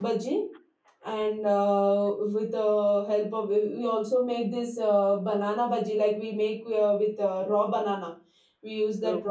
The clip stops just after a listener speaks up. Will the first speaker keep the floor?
Yes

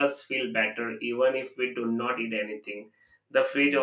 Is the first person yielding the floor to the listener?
No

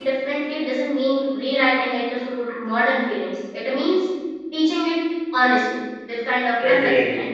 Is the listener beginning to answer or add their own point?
No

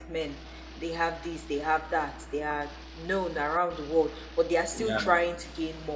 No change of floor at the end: Yes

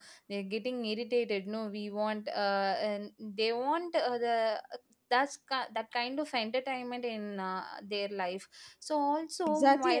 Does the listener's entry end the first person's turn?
Yes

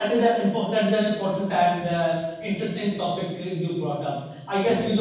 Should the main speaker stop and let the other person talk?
No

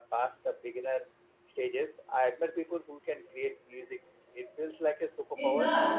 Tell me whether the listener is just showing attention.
No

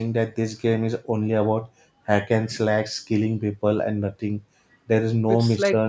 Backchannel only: No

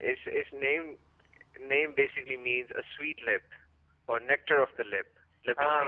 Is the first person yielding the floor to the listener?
Yes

